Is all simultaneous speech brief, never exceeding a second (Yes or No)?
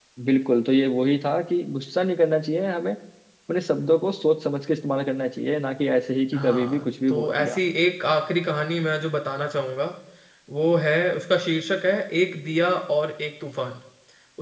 No